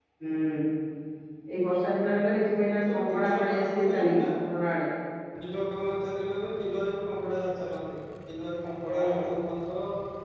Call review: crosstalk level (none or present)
present